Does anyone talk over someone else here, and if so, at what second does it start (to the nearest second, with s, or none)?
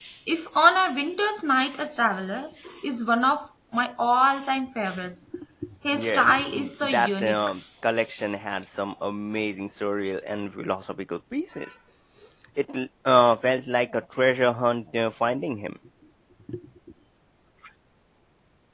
6 s